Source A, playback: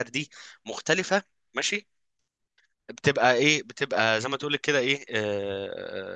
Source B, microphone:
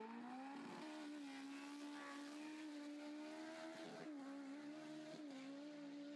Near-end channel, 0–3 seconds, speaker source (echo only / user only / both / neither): neither